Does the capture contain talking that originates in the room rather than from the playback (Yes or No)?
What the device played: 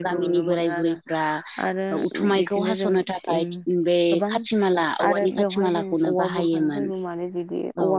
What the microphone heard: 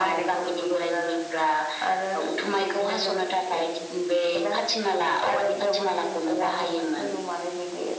No